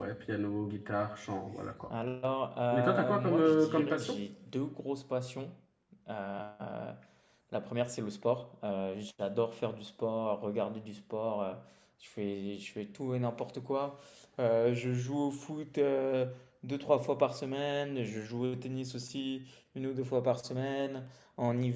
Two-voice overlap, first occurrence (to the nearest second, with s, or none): 3 s